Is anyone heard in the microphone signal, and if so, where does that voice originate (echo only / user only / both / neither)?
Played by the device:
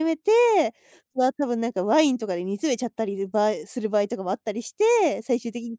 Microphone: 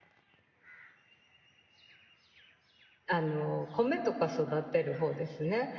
user only